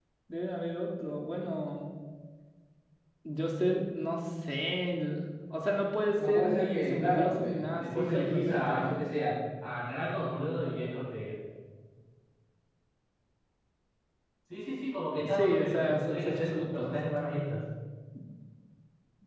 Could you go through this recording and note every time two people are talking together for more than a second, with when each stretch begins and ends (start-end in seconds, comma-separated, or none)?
6.2-9.0, 15.2-16.9